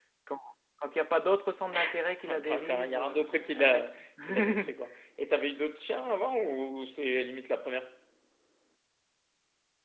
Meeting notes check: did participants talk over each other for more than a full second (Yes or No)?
Yes